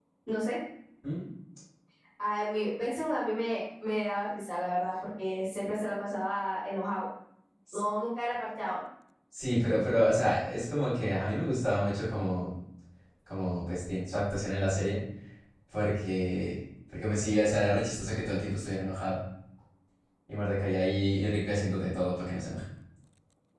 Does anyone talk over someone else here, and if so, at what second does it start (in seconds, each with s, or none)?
none